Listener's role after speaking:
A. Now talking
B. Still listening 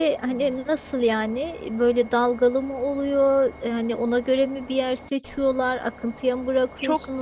A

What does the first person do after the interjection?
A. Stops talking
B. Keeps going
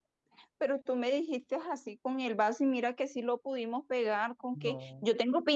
B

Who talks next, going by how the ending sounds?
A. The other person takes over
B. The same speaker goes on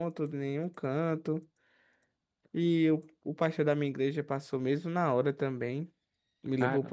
B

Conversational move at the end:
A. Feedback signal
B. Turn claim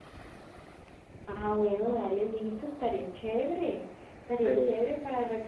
A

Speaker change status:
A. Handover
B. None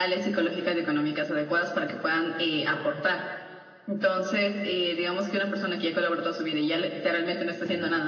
B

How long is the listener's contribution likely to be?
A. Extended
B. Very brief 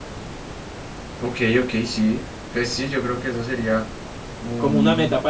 A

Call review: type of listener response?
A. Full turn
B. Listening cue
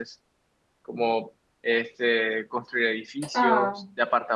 B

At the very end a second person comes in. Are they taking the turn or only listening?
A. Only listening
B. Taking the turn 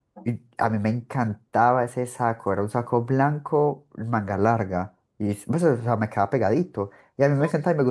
A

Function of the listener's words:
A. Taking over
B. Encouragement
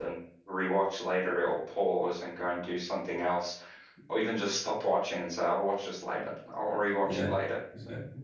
A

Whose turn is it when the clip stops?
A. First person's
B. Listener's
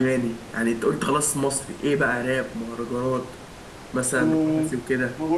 B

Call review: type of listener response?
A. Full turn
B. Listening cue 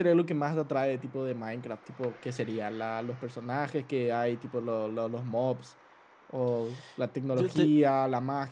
B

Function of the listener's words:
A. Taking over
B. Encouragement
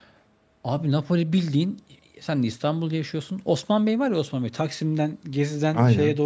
B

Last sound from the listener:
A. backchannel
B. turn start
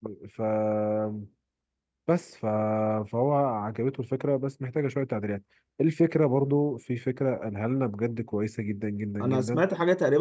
B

